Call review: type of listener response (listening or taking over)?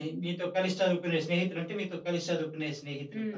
taking over